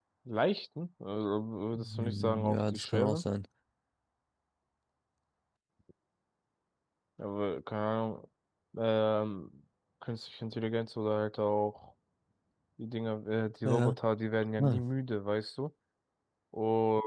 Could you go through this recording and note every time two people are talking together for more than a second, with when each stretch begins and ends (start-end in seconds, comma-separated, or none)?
1.7-3.2